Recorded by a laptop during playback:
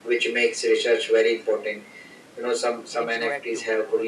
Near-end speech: present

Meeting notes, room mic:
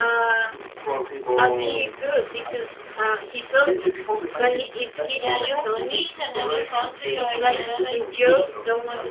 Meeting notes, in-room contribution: present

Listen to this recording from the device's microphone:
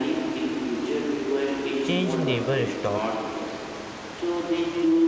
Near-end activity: present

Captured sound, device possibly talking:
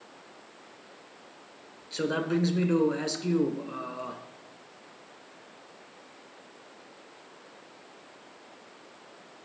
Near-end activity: present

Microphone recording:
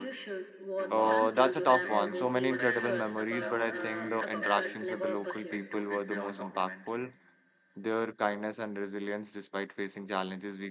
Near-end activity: present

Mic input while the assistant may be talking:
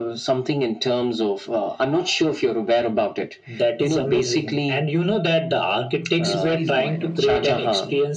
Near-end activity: present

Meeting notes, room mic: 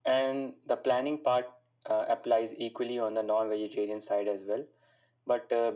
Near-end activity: none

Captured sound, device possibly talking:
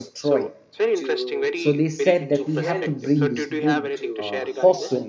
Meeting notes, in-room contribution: present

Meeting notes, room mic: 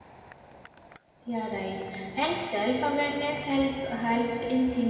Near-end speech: present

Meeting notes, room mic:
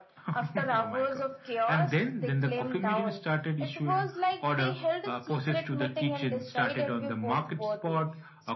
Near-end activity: none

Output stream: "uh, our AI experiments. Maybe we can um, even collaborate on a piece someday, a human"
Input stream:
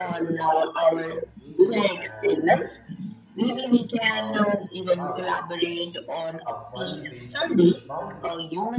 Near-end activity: present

